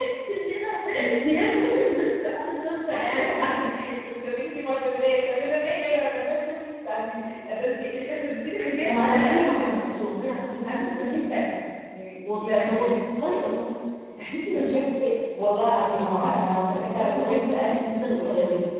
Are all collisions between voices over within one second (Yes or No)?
No